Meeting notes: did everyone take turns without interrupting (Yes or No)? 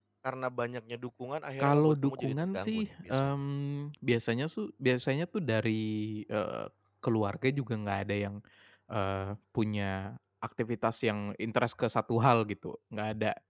No